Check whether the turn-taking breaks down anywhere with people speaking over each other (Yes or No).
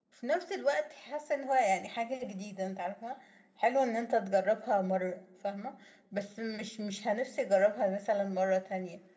No